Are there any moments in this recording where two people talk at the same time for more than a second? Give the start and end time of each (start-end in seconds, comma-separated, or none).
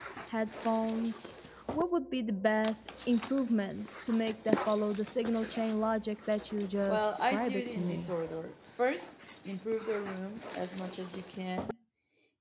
6.9-8.1